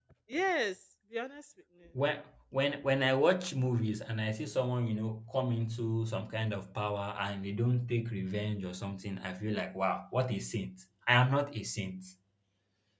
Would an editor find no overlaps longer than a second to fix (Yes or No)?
Yes